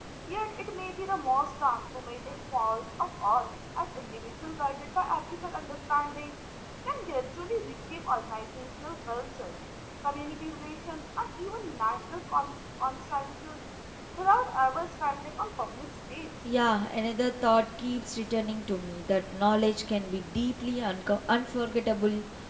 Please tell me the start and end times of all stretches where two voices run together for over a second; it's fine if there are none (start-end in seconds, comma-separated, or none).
none